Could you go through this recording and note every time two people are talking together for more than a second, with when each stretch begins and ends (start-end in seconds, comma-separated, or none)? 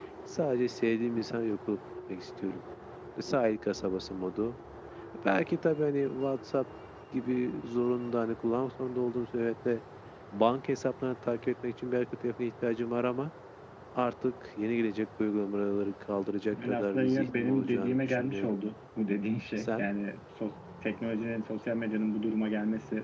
16.5-18.6